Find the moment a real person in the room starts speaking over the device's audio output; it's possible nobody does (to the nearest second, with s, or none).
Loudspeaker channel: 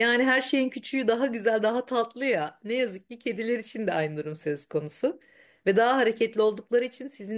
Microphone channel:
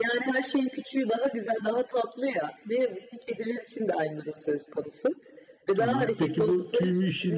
6 s